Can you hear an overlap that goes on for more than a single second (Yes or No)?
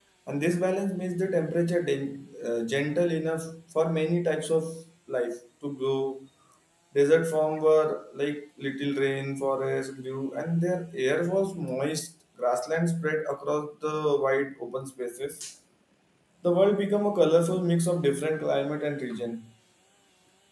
No